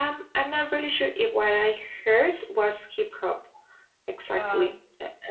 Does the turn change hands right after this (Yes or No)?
No